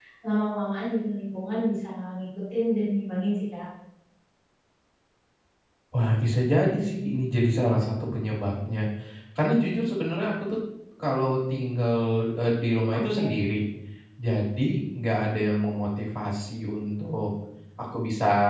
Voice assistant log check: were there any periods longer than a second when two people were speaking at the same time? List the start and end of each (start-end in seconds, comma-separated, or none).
none